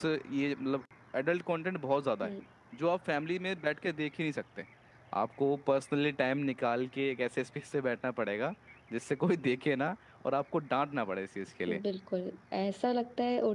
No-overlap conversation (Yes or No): Yes